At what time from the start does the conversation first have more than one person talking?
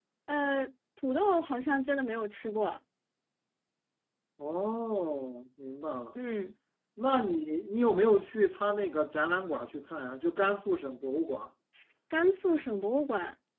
none

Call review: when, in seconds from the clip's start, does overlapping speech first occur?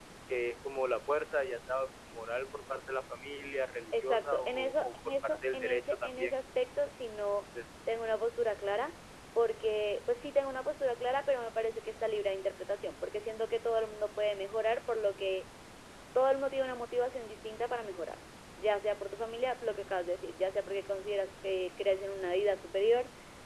3.9 s

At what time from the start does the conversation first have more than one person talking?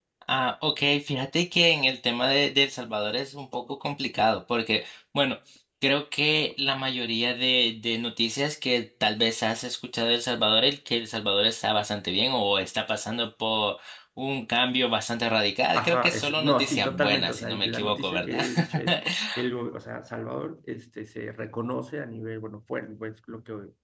15.8 s

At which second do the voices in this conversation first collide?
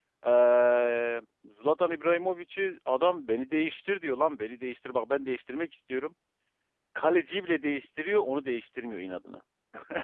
none

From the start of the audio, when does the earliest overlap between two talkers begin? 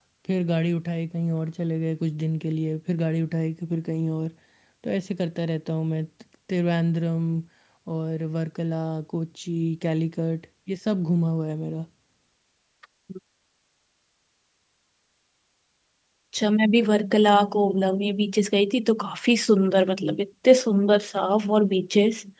none

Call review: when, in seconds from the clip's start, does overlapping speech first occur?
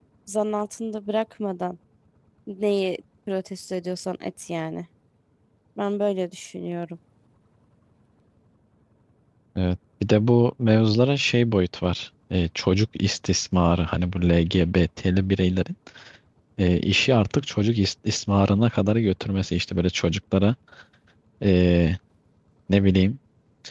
none

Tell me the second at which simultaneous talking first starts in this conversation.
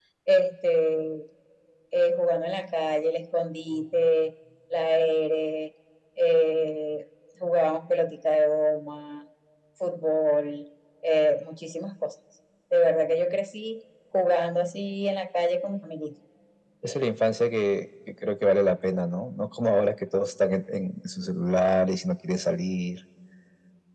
none

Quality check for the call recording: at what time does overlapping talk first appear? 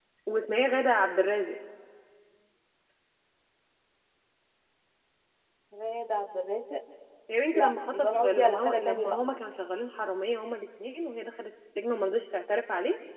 7.5 s

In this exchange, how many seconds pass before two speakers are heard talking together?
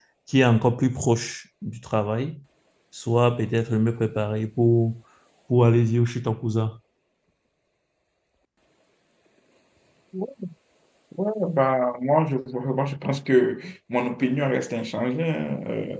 none

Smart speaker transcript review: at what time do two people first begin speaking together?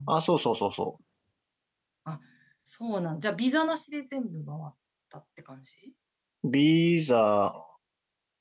none

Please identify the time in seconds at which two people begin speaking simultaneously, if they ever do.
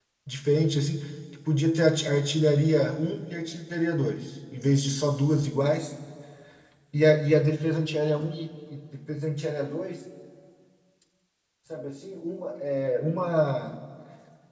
none

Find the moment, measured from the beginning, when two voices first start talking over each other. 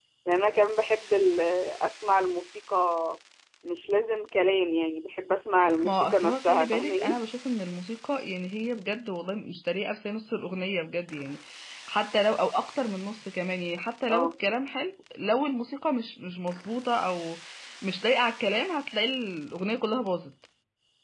5.8 s

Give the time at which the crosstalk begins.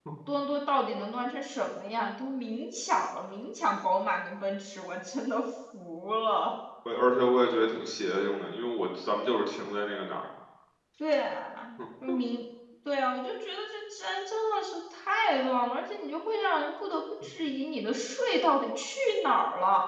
none

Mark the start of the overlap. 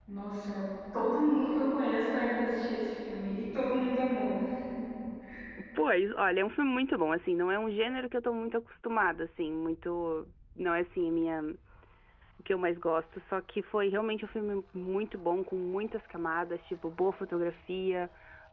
none

